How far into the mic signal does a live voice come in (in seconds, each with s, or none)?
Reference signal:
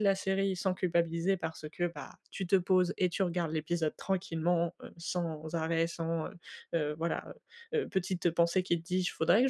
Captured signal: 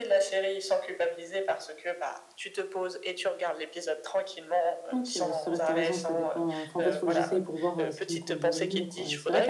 4.9 s